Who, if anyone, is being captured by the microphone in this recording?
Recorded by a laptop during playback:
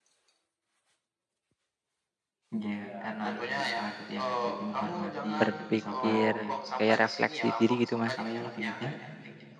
both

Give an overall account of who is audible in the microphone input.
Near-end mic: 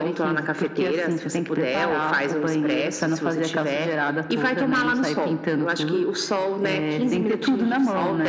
echo only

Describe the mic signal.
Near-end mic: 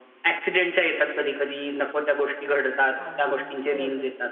both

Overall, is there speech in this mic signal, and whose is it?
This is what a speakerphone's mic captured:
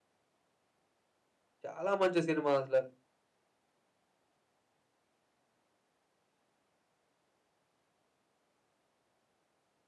user only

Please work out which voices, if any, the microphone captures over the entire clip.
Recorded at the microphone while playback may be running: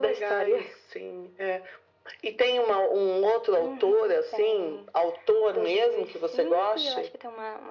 echo only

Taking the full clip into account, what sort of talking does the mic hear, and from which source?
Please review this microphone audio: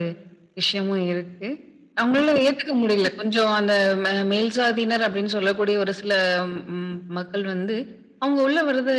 echo only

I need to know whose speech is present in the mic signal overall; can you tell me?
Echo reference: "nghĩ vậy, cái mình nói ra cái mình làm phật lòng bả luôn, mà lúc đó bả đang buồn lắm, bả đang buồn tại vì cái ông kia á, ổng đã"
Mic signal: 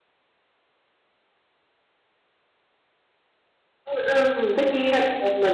user only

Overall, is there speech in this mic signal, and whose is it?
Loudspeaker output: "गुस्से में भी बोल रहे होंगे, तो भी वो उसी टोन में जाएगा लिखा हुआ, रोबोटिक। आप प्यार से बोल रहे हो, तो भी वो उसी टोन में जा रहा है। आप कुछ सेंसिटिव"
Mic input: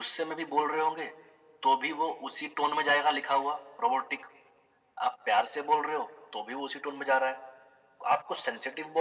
echo only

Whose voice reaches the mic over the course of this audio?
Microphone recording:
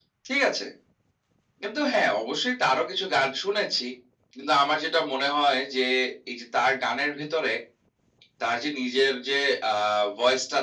echo only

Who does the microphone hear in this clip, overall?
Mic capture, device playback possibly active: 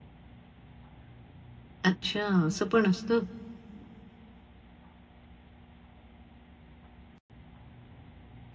user only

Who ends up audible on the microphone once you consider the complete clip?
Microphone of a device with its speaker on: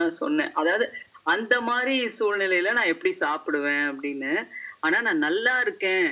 echo only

